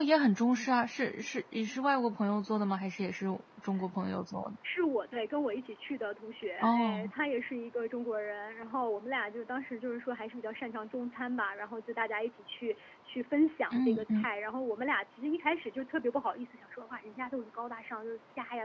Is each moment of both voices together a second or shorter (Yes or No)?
Yes